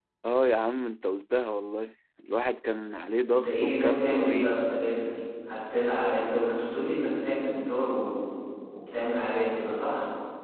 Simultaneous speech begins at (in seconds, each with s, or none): 3.2 s